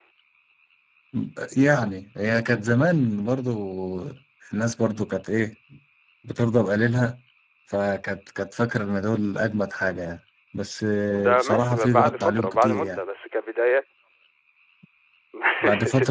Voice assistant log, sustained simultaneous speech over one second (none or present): present